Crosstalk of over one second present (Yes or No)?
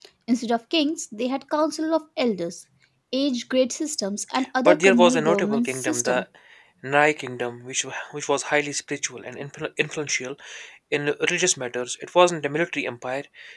Yes